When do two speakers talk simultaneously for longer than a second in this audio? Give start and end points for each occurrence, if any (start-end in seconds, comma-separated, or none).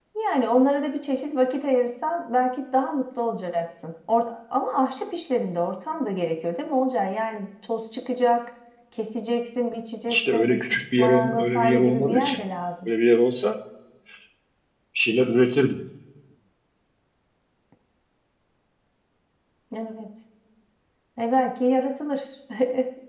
10.1-12.4